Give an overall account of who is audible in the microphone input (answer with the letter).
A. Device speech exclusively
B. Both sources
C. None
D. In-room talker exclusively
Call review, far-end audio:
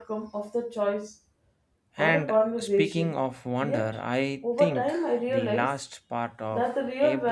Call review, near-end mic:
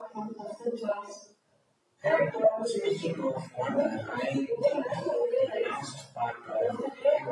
A